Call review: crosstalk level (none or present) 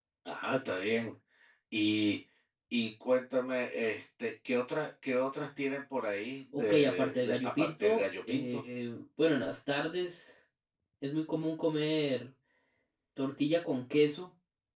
present